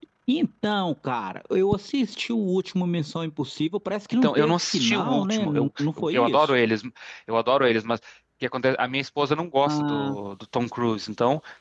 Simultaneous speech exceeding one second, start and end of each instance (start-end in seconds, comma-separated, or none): 4.2-6.5